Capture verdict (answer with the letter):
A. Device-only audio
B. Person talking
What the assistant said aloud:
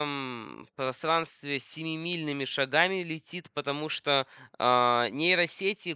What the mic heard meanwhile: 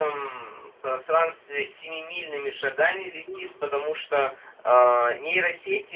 B